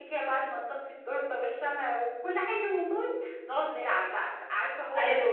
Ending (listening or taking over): taking over